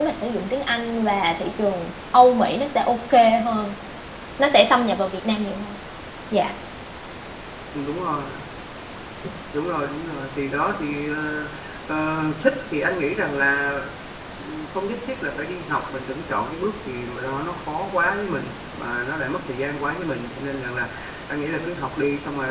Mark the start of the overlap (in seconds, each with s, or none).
none